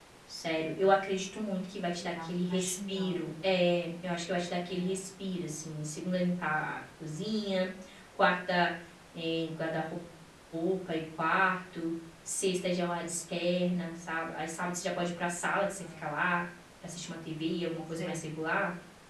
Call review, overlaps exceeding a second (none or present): present